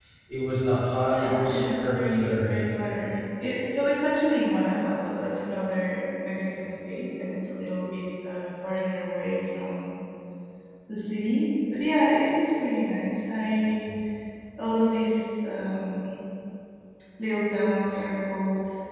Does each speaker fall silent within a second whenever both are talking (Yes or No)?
No